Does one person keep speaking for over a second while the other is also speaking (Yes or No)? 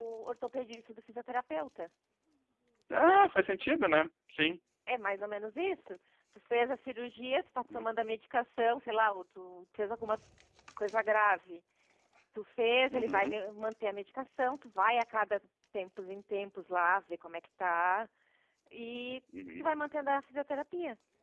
No